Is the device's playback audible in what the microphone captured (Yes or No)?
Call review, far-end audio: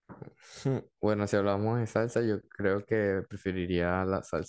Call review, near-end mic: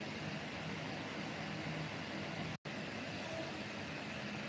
No